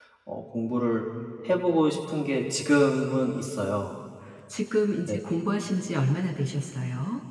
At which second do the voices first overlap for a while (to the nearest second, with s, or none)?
none